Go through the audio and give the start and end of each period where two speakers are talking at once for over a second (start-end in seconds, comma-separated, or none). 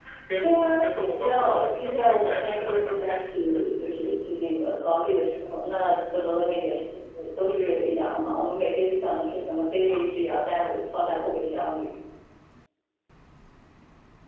1.2-3.2